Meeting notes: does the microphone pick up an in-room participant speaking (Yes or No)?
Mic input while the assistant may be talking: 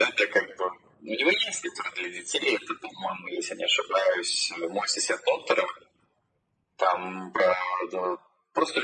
No